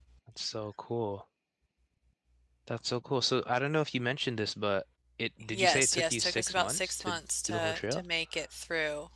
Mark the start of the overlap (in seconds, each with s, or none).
5.5 s